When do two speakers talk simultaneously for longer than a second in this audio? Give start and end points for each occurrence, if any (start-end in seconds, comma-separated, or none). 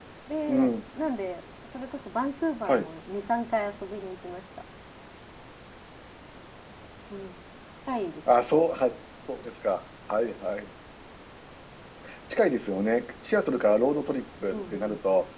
none